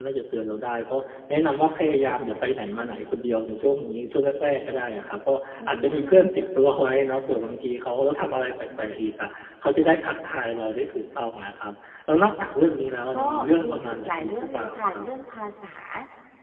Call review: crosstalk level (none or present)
present